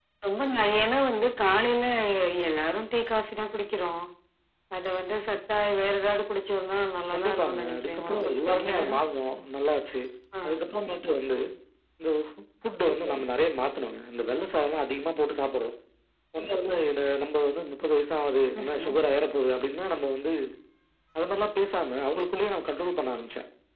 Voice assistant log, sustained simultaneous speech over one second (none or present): present